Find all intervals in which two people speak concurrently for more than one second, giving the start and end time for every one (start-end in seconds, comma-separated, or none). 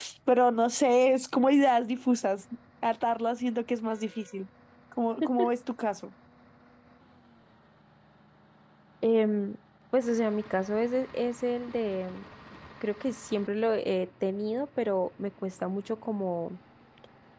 none